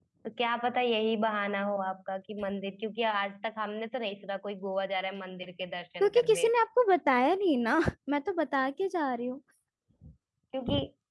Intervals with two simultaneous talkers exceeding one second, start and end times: none

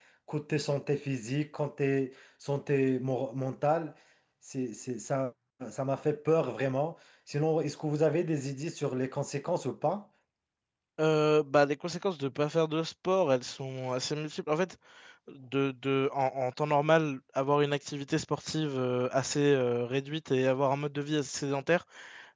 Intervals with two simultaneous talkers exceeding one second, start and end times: none

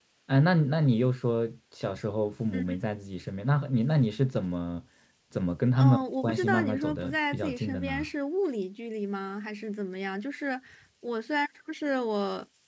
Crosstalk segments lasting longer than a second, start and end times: 5.8-8.1

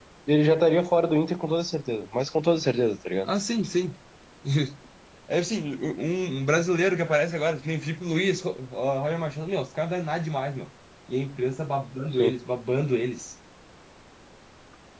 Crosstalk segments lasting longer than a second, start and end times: none

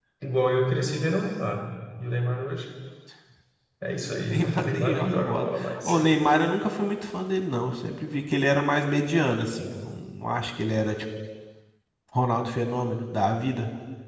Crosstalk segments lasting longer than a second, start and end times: 4.0-5.8

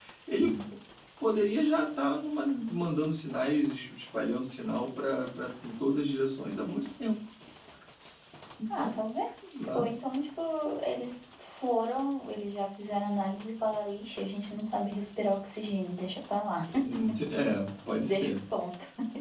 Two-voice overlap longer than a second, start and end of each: none

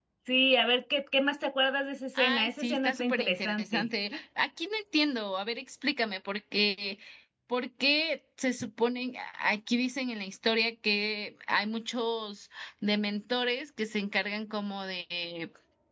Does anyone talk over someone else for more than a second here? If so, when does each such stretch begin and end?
2.1-3.9

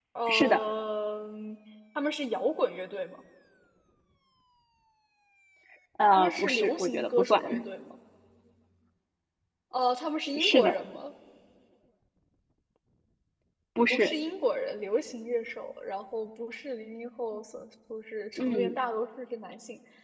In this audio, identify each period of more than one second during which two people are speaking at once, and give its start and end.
6.1-7.4

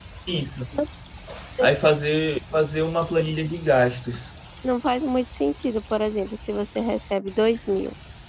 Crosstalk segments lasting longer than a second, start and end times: none

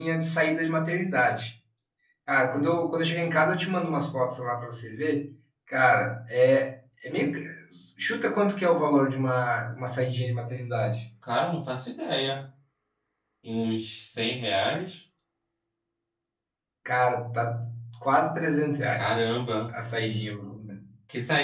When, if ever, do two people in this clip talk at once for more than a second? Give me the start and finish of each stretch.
none

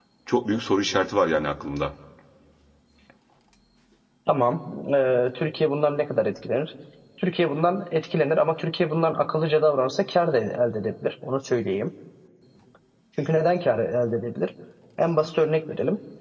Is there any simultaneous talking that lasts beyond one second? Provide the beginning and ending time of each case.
none

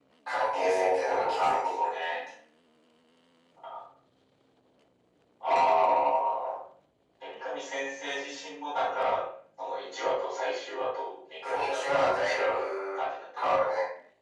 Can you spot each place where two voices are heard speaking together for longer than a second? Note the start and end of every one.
0.5-2.1, 11.4-13.0

